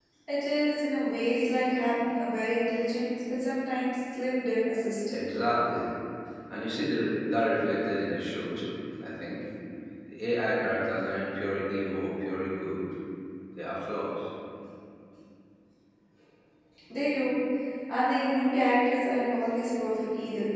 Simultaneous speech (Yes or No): No